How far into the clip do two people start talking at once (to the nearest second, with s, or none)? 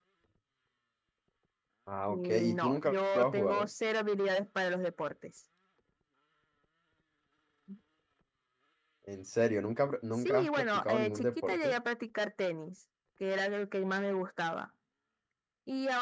2 s